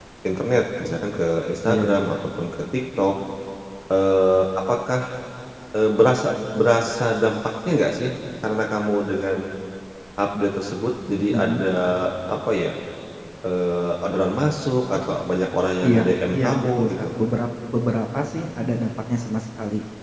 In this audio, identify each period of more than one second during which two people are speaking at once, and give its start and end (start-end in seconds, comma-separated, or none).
15.8-17.1